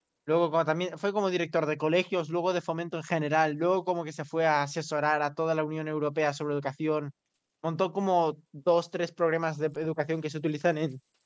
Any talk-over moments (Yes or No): No